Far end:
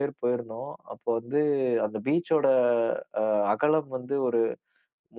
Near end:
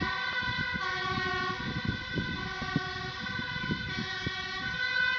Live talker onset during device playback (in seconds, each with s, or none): none